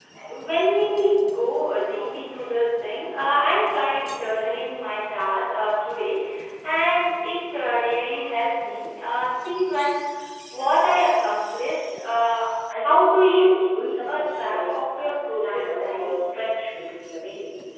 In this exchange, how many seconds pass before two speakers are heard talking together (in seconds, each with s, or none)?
12.9 s